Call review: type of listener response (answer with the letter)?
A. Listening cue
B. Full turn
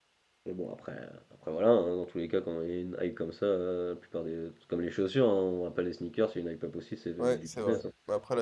B